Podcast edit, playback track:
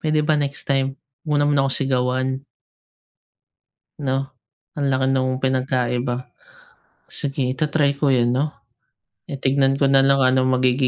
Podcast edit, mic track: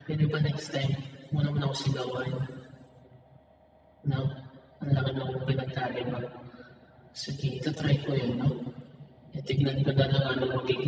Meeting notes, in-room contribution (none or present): none